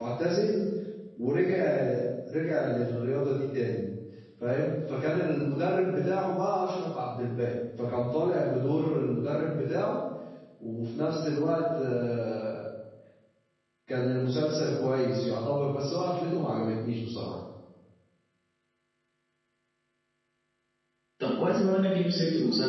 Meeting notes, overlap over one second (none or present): none